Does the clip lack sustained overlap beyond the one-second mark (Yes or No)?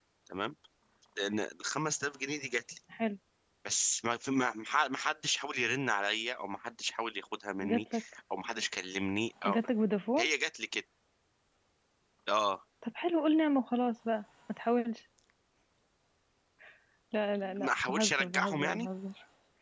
No